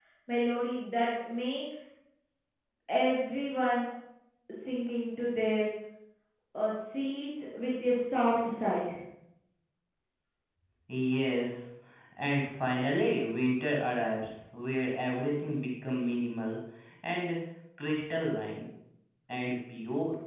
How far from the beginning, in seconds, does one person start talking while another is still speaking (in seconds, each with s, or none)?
none